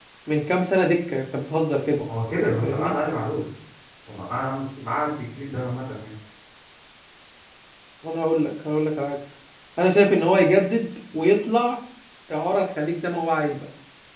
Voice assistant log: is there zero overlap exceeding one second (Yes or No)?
Yes